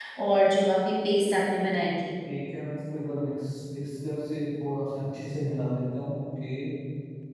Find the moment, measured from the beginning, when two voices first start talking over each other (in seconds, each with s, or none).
none